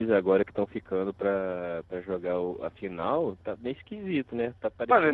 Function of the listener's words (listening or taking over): taking over